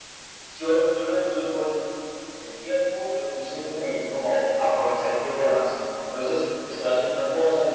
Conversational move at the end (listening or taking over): listening